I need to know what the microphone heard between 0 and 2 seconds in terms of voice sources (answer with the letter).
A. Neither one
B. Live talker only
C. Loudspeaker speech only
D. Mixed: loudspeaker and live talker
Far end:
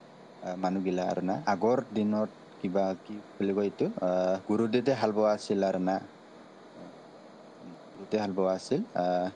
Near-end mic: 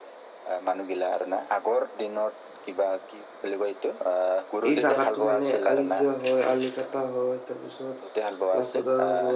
C